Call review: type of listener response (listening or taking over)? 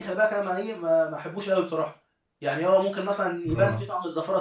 listening